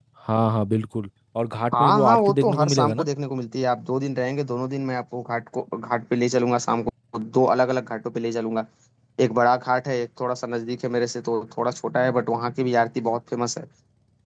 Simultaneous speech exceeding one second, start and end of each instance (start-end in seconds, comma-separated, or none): 1.8-3.0